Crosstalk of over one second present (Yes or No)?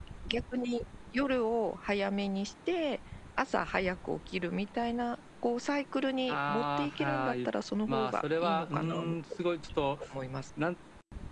Yes